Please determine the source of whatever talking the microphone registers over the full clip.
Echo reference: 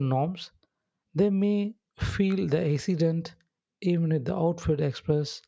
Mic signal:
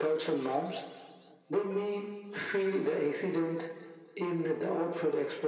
echo only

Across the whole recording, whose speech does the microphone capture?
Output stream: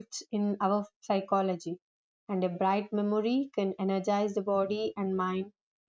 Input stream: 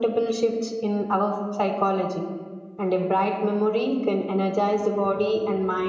echo only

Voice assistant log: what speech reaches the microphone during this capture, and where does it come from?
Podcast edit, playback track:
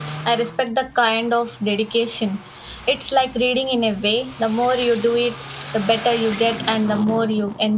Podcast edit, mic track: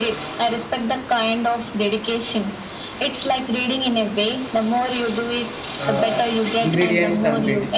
both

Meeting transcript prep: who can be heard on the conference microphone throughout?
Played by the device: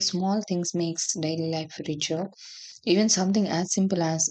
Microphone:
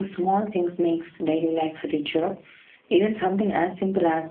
echo only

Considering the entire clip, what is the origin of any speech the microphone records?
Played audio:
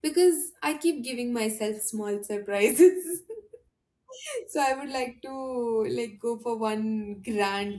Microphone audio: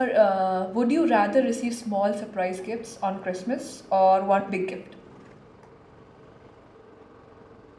user only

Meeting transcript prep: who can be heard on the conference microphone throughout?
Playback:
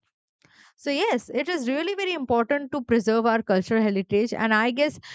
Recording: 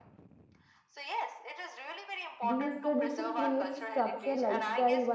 both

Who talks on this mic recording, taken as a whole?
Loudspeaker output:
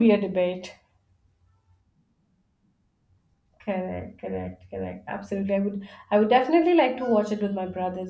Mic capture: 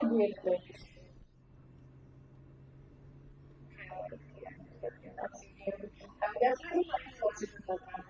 echo only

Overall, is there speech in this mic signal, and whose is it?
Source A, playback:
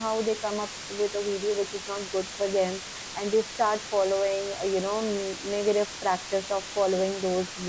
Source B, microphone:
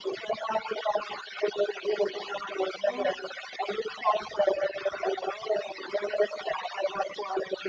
both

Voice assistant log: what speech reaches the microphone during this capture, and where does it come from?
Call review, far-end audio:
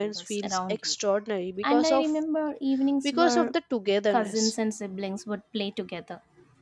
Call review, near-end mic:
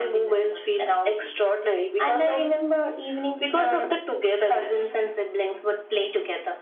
echo only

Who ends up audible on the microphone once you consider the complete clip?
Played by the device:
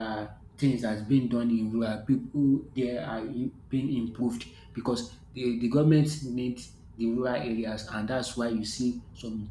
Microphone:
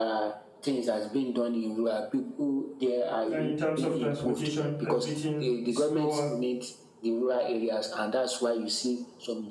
both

